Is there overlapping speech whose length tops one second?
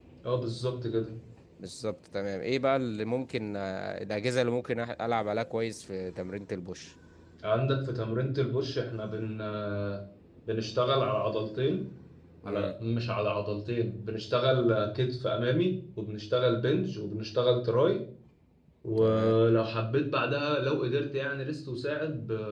No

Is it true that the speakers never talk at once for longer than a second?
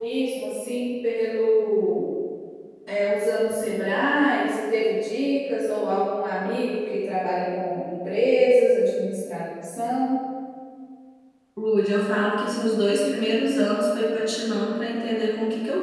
Yes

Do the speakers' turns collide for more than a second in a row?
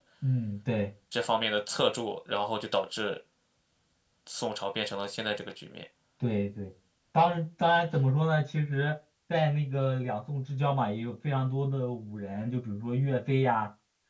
No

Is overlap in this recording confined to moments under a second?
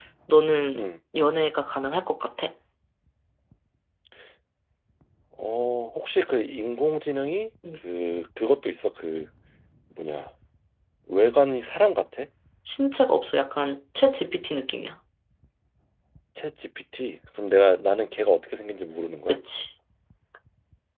Yes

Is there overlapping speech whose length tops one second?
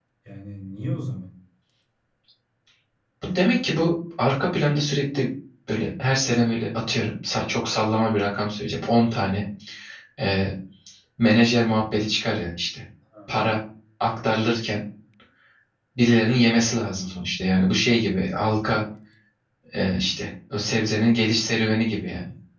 No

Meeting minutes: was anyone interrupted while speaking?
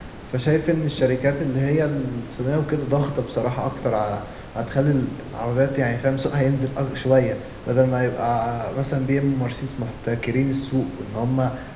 No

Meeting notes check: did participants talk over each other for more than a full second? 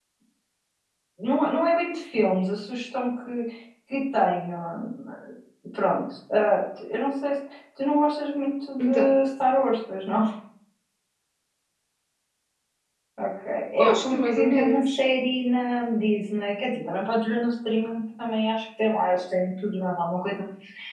Yes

